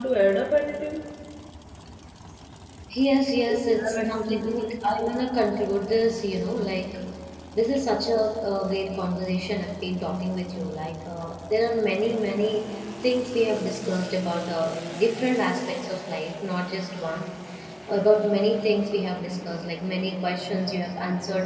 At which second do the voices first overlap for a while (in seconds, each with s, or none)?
3.5 s